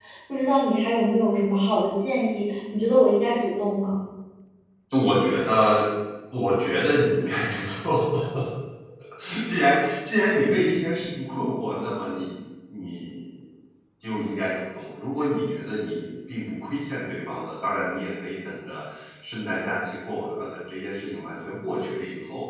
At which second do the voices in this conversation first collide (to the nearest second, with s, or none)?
none